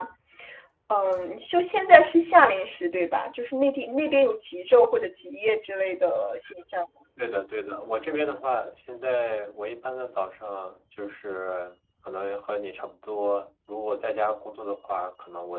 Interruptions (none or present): none